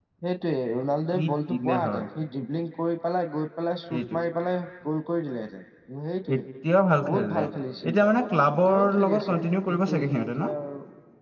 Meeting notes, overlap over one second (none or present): present